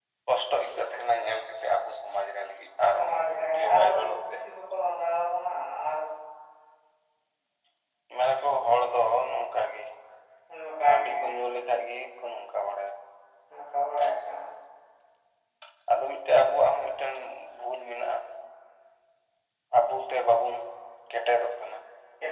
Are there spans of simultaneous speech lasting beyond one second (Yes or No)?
Yes